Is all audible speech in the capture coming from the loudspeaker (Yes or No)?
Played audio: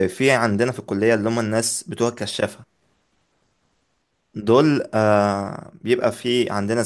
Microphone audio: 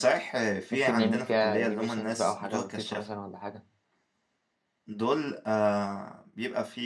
No